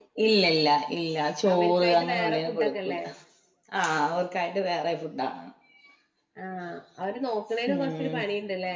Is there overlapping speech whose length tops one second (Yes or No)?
Yes